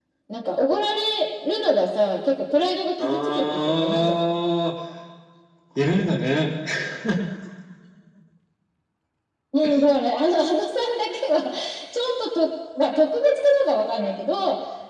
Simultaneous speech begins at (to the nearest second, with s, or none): 3 s